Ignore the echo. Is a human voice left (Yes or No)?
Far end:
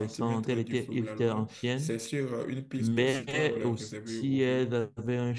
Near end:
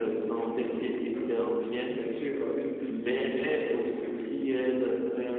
No